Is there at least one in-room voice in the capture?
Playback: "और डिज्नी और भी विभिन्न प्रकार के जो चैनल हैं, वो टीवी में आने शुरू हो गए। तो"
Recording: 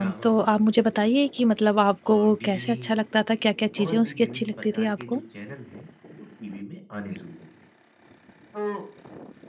Yes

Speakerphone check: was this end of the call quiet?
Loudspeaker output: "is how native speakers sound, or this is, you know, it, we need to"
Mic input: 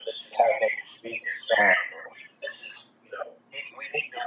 Yes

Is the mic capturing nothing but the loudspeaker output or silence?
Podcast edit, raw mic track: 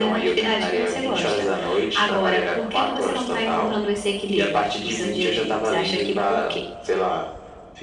Yes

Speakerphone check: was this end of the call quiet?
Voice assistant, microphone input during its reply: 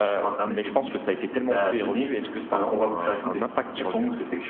No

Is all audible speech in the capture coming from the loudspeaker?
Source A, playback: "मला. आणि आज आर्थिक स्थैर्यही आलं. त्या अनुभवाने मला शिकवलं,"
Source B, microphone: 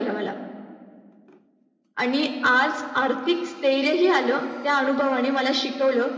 Yes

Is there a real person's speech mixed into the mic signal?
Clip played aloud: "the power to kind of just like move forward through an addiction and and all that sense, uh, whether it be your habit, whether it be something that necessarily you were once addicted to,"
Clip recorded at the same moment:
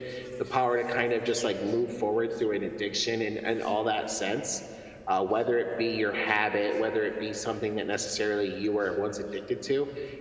No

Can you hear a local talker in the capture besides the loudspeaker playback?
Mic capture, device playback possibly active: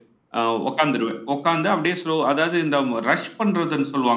No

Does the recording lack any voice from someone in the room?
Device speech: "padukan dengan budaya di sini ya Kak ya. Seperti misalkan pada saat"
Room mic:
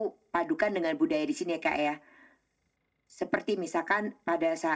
Yes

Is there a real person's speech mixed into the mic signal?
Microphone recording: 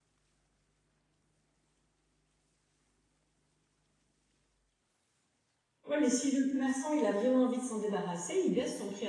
Yes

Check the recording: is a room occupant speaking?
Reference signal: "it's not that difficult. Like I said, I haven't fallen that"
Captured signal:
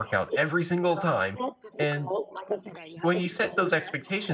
Yes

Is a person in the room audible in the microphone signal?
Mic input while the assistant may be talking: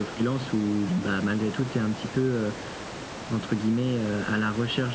No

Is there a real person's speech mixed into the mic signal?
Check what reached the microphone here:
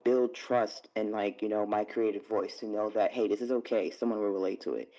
No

